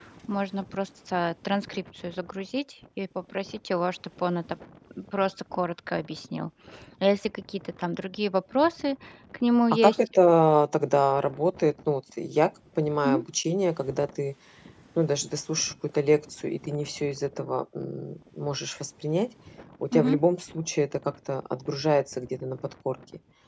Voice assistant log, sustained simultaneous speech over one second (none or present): none